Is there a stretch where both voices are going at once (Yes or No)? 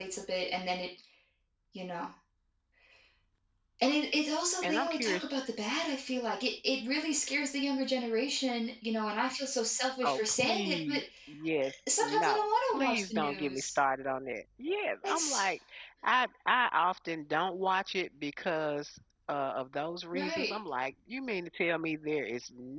Yes